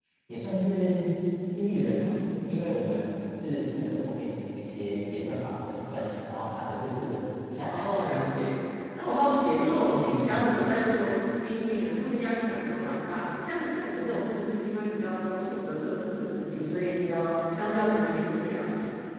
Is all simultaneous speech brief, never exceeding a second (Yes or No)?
Yes